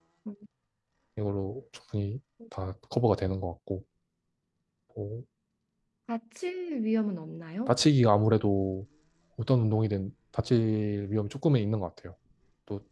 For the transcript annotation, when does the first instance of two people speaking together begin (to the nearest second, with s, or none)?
none